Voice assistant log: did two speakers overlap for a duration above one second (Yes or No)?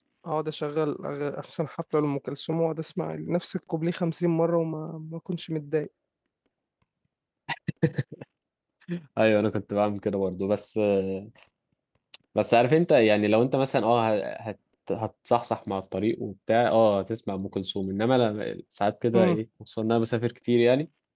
No